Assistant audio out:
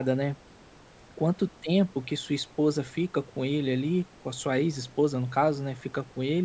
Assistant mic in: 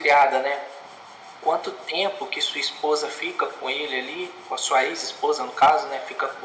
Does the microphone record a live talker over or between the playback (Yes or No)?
No